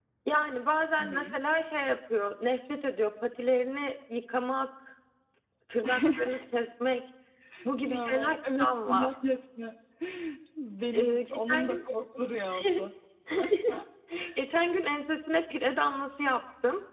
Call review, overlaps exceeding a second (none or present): present